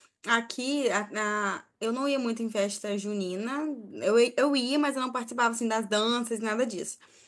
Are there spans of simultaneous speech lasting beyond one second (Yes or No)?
No